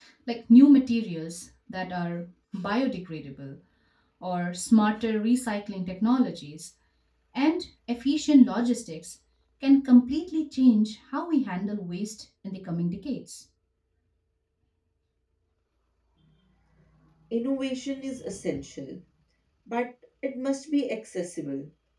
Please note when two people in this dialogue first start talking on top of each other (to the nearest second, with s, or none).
none